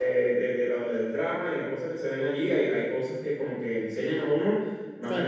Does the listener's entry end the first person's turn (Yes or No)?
No